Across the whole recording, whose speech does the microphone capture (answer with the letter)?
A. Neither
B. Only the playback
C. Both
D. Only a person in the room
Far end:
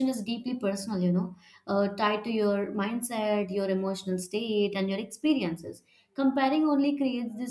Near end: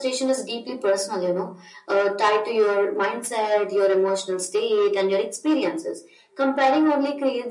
B